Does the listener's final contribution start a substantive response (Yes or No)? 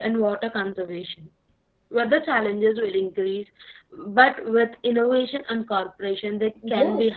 Yes